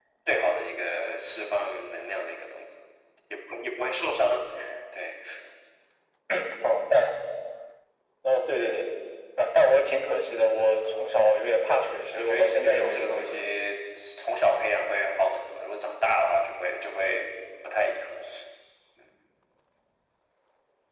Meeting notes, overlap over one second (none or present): present